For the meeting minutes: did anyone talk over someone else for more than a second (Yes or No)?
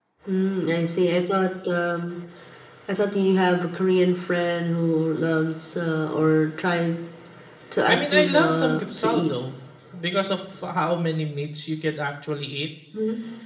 Yes